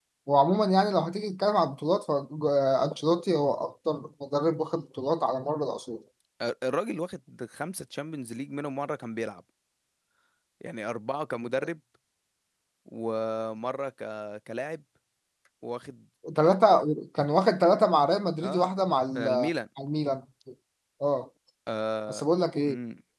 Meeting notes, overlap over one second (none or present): none